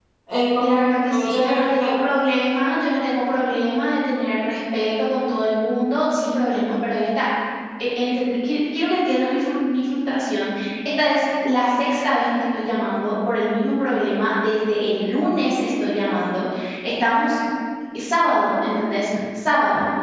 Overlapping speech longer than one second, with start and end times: 0.6-1.9

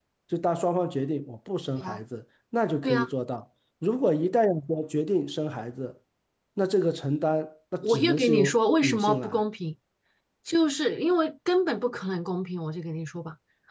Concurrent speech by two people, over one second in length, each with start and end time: 7.8-9.4

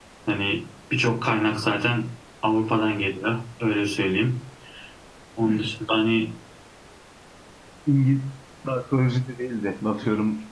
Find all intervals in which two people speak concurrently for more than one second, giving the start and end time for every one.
none

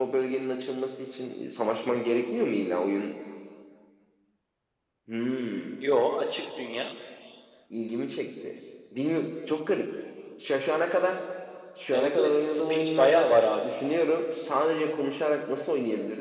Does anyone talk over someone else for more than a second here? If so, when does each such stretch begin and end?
11.9-13.7

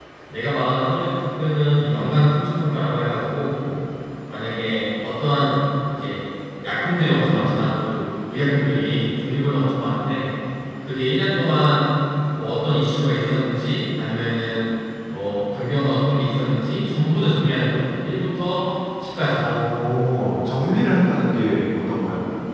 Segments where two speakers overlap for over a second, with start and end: none

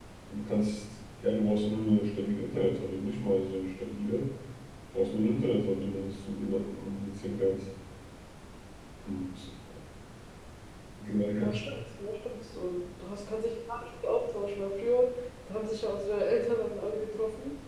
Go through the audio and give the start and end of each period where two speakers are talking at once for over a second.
none

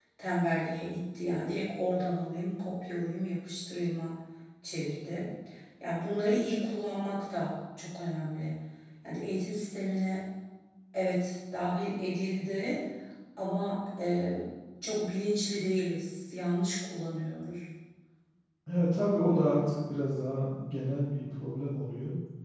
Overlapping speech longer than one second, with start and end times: none

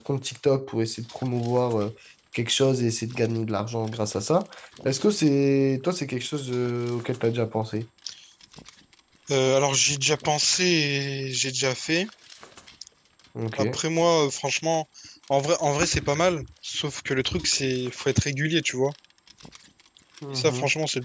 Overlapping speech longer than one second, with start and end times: none

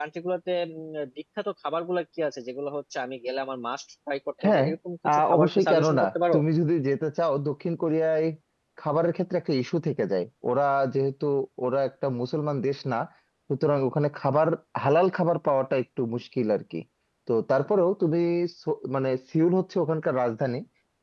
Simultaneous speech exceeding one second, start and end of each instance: 5.1-6.4

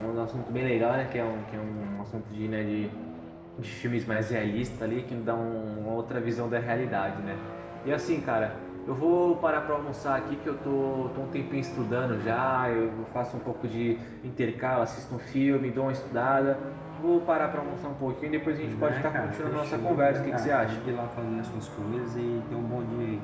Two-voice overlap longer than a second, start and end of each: 18.8-20.8

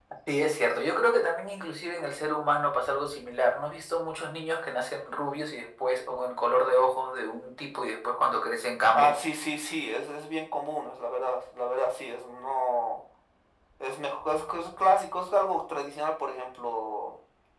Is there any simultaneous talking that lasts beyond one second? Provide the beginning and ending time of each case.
none

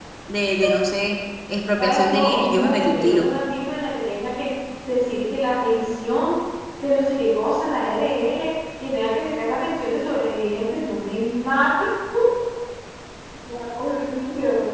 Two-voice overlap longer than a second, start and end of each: 1.8-3.3

